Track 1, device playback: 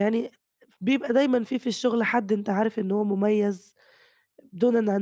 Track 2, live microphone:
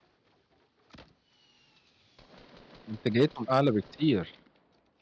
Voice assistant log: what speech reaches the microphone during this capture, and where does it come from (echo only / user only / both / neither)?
user only